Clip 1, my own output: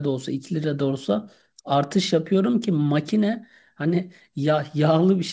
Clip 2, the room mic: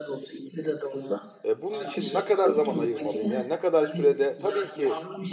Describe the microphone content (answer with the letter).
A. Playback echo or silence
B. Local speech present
B